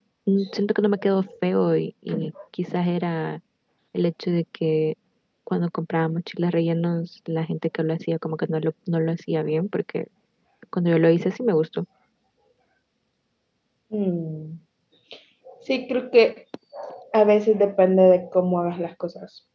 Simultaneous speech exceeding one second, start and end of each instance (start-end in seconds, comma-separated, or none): none